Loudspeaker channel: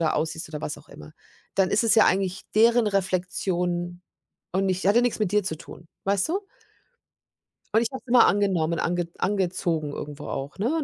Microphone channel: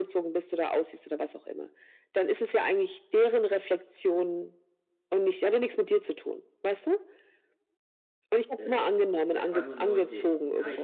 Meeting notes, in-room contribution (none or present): present